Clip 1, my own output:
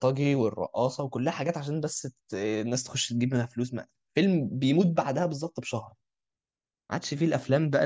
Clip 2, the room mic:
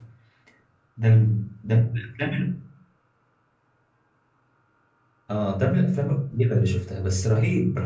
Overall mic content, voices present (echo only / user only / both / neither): user only